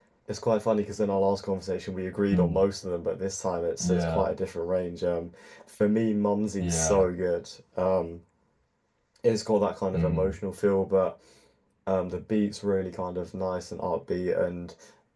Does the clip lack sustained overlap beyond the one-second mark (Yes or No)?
Yes